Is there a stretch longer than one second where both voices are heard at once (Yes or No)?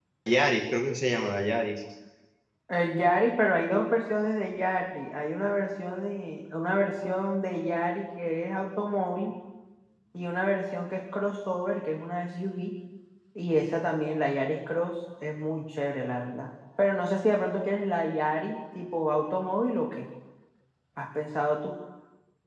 No